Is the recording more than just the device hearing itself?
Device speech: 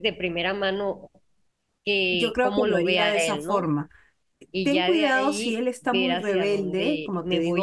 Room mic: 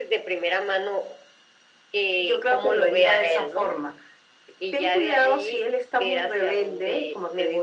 No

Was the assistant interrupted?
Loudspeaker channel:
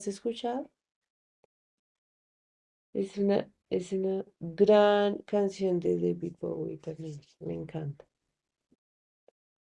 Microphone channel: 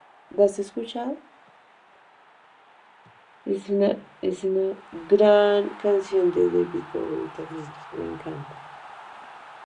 No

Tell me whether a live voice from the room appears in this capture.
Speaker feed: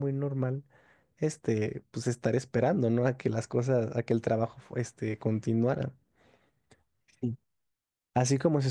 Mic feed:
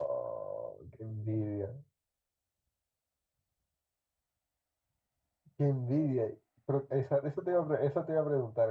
Yes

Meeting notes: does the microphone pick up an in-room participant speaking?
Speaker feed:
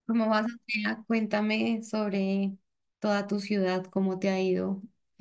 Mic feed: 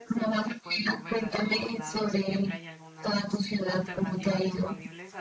Yes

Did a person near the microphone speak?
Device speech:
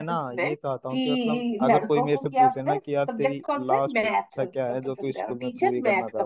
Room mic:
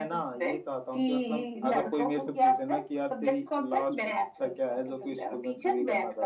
No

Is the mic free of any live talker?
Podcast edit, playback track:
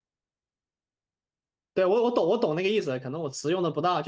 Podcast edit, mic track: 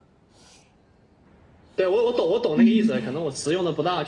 No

